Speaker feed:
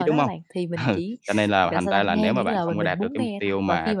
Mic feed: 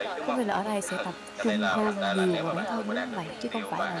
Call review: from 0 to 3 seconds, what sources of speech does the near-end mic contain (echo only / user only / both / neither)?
both